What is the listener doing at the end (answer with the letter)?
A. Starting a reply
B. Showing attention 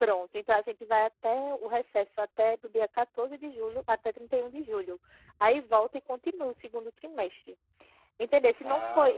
B